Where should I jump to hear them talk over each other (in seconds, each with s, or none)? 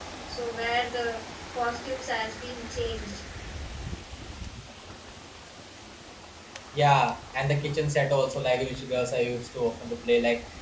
none